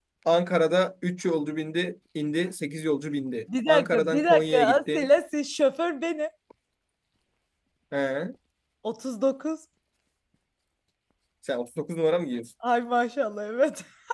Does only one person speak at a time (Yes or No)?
No